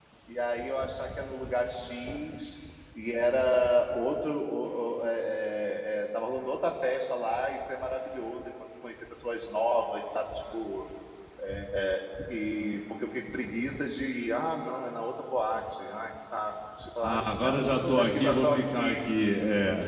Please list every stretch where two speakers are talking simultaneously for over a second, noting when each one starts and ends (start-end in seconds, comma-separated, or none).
17.0-19.0